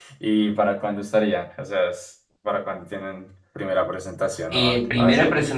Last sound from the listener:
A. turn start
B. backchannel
A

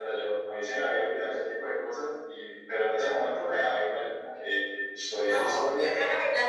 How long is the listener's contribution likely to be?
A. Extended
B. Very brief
A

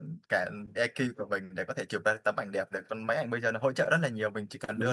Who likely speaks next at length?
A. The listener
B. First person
B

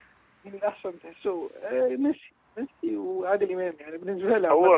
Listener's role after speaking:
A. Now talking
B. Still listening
A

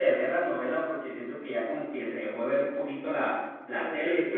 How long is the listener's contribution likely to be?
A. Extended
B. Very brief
A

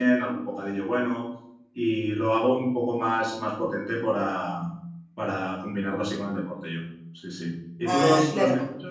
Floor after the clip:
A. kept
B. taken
A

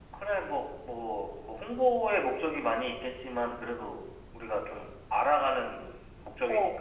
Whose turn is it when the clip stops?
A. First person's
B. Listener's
B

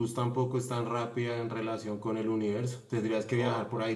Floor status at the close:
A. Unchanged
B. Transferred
A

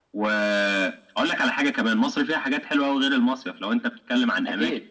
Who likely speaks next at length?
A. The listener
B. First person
B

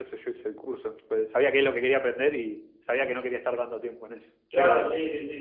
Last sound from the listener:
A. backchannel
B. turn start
B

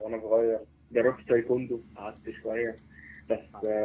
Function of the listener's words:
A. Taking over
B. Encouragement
B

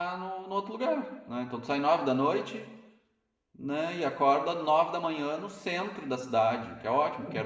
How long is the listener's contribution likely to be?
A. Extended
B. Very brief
B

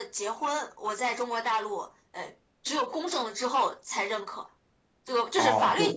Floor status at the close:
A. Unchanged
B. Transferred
B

